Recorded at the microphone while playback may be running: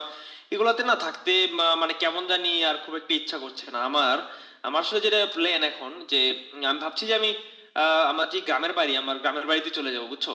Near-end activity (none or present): none